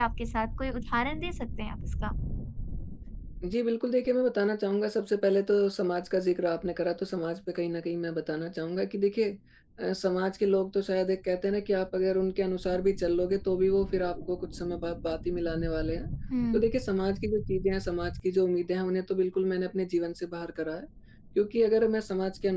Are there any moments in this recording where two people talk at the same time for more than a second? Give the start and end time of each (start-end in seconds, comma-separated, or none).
none